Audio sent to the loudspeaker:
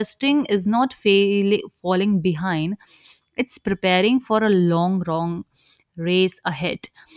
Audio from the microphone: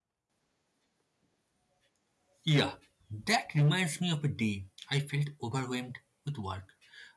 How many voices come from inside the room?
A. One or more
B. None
A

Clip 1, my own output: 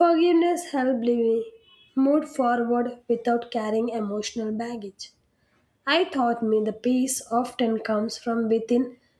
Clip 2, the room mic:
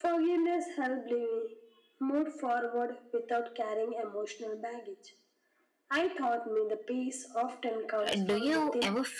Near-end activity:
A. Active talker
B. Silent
A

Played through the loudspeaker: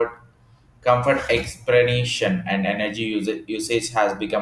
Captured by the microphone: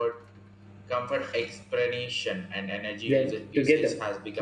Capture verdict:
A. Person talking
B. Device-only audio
A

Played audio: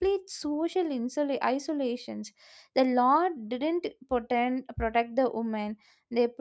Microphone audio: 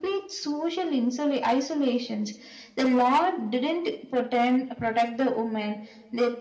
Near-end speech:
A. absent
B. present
A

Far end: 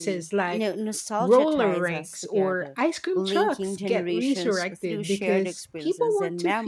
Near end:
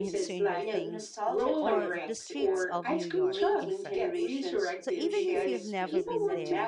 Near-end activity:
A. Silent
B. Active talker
B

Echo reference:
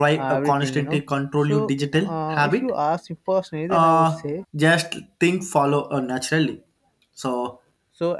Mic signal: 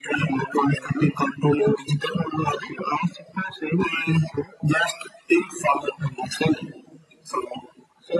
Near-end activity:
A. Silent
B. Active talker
A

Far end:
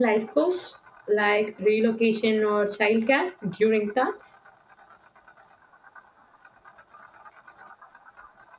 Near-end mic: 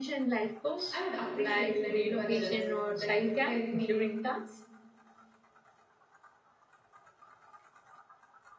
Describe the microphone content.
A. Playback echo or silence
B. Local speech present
B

